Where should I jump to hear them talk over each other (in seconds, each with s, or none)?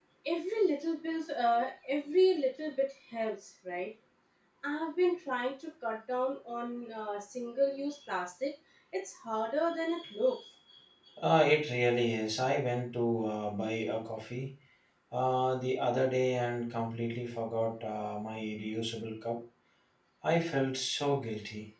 none